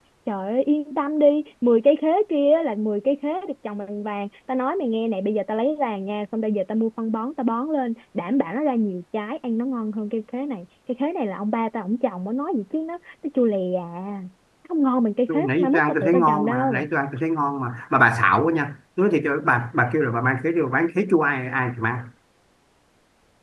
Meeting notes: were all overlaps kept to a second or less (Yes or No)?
No